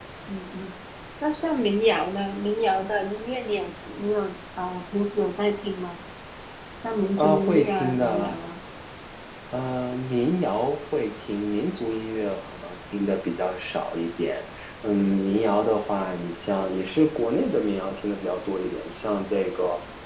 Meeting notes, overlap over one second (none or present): present